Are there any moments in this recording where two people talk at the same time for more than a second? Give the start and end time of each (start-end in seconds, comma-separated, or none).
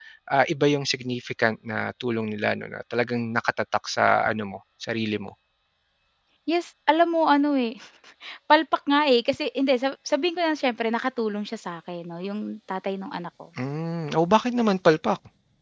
none